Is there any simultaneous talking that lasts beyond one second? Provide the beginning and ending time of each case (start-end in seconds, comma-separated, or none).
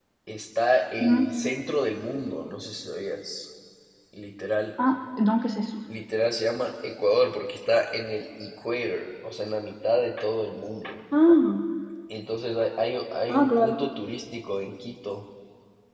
none